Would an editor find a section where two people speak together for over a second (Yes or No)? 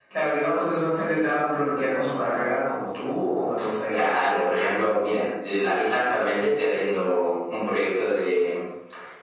No